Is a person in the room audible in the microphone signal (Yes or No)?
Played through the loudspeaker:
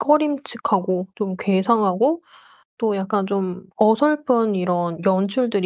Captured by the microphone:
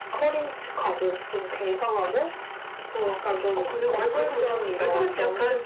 Yes